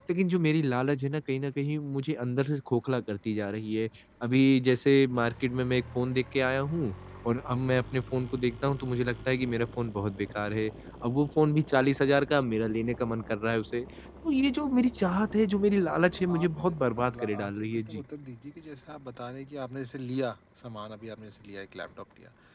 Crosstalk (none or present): present